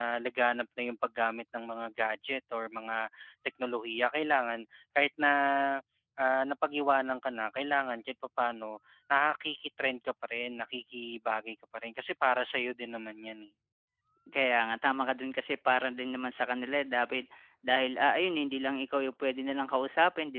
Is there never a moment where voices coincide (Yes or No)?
Yes